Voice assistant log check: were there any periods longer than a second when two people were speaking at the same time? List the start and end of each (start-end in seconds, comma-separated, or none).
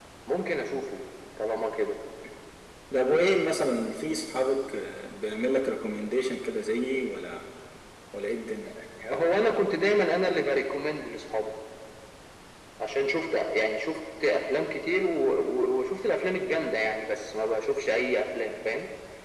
none